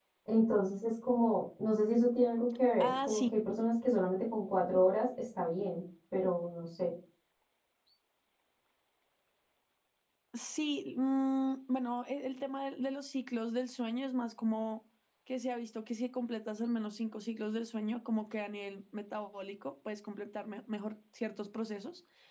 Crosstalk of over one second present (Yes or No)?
No